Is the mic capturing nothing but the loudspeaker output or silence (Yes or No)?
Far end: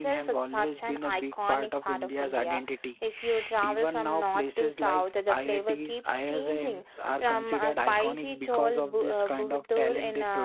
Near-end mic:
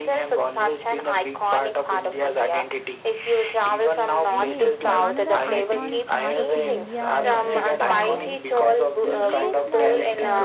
No